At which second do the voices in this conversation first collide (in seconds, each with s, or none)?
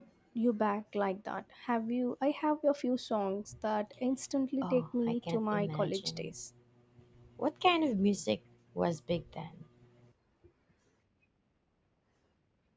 4.6 s